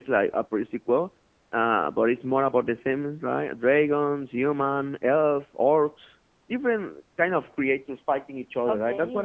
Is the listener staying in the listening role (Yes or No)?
Yes